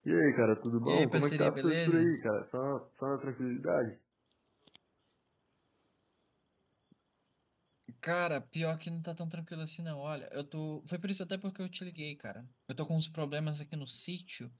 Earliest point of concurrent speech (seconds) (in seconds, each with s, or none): 0.8 s